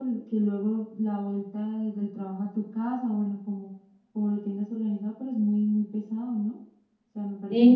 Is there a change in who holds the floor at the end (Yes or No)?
Yes